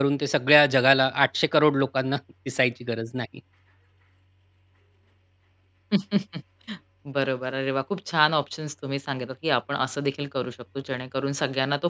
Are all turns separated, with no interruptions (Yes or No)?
Yes